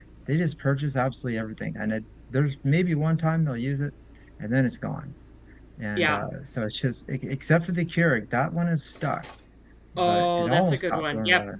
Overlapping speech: Yes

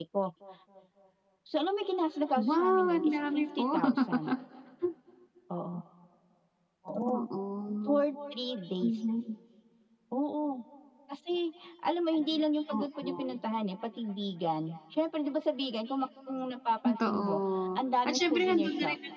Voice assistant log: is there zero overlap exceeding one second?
No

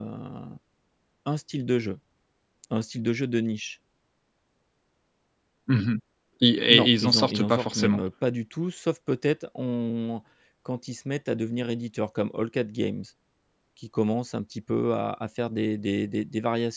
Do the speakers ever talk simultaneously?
Yes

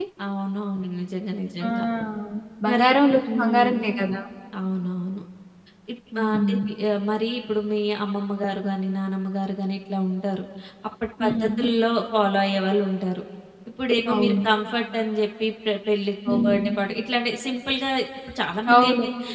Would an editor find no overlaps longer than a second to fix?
Yes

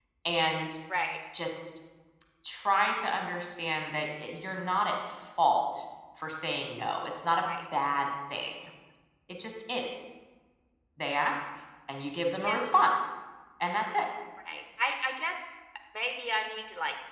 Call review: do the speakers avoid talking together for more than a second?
Yes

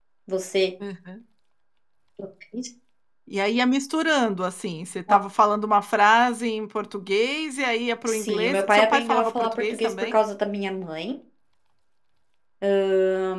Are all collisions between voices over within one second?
No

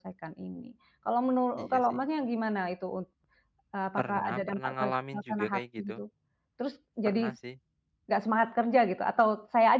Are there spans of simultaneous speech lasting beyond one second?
Yes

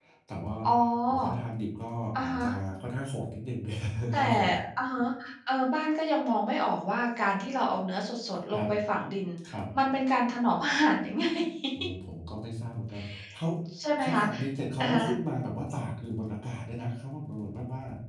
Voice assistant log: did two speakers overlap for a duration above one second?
No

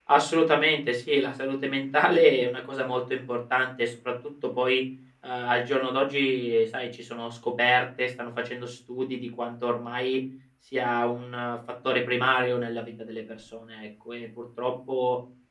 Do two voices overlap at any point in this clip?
No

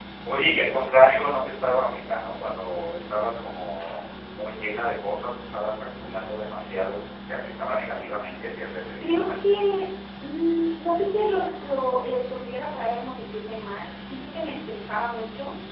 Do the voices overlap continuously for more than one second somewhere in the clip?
No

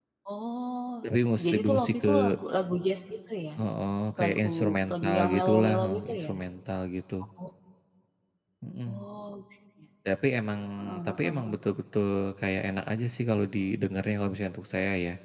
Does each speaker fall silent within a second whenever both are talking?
No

